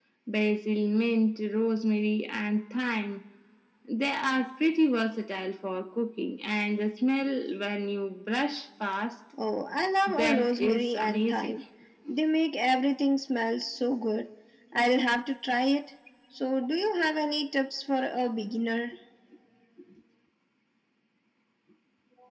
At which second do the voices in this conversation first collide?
10.1 s

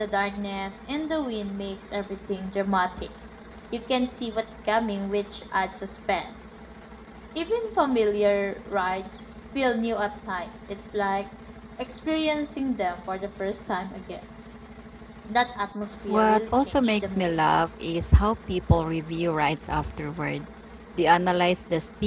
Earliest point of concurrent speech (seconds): 16.1 s

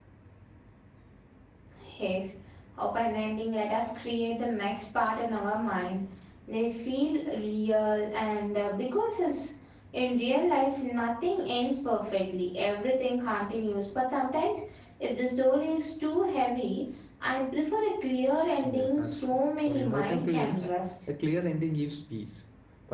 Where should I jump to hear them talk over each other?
18.6 s

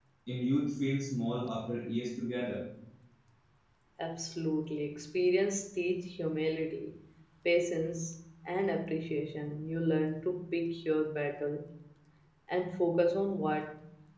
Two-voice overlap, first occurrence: none

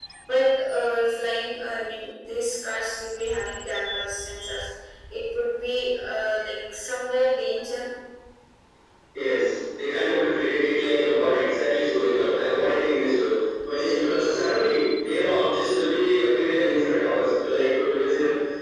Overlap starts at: none

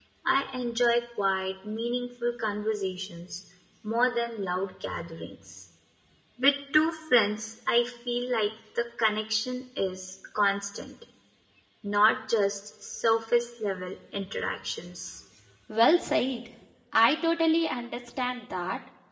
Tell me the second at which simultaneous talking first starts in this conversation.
none

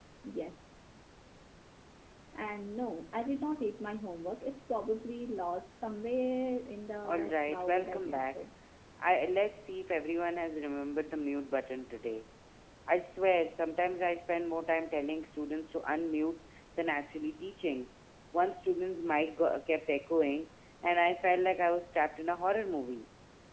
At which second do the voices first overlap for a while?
7.0 s

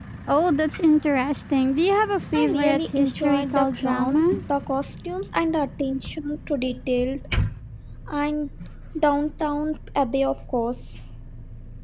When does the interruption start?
2.3 s

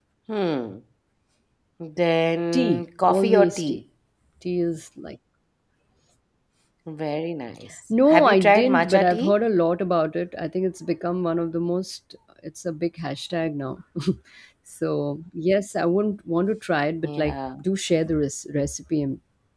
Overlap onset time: 2.5 s

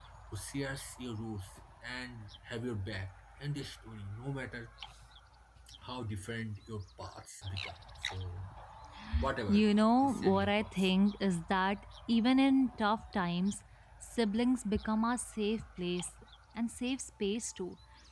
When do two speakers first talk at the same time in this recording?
9.5 s

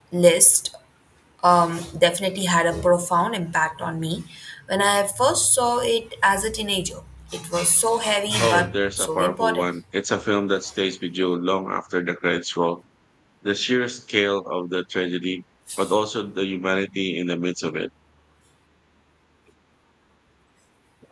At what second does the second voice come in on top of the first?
8.4 s

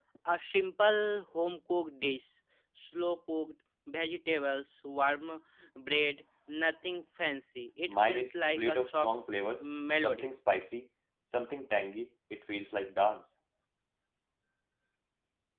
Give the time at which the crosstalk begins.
7.9 s

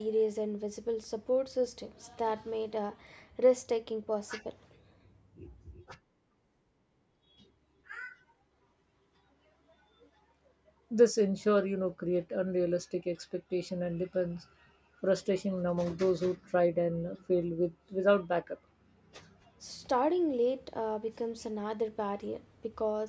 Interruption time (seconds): none

